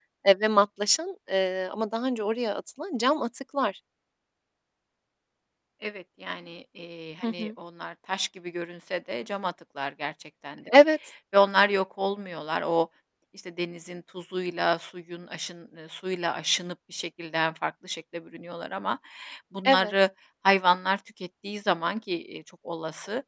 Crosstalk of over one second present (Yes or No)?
No